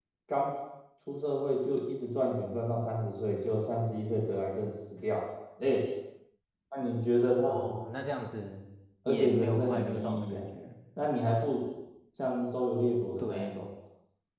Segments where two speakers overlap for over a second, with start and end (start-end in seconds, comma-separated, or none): 9.1-10.4